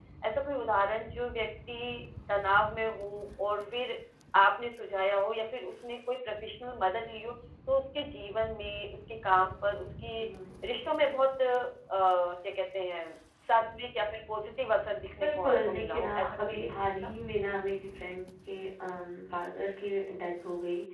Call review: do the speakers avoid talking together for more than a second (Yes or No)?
No